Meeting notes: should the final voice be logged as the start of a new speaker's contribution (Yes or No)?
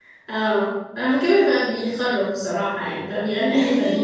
Yes